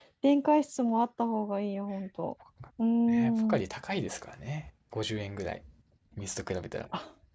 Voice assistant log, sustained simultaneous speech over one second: none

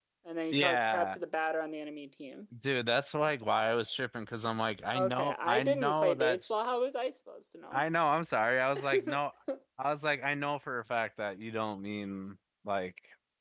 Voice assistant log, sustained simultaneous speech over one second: present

